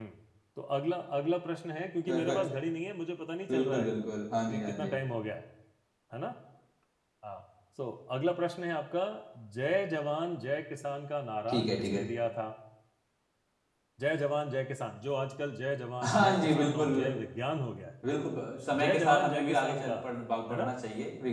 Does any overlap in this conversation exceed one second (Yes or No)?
Yes